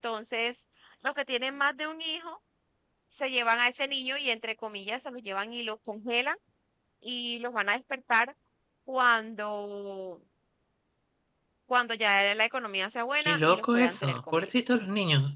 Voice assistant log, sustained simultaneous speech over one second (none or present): present